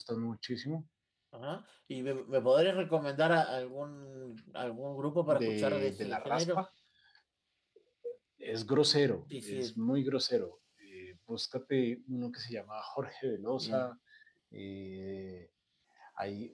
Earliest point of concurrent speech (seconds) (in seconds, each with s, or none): 5.3 s